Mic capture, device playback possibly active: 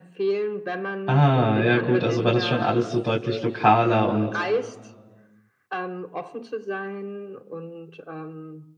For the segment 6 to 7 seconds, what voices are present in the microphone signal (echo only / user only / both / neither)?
echo only